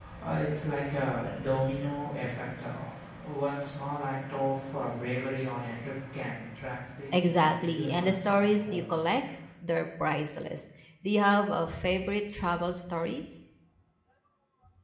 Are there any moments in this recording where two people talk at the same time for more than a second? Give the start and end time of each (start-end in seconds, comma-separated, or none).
7.1-8.8